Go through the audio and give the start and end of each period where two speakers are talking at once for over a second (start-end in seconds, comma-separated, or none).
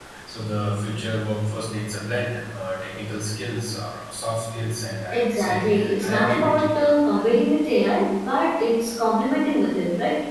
5.1-6.8